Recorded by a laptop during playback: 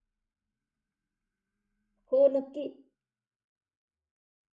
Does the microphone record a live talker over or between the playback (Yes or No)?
Yes